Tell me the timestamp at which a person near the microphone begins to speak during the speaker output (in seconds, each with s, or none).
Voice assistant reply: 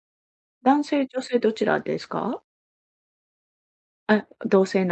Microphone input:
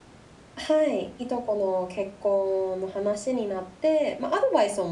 0.6 s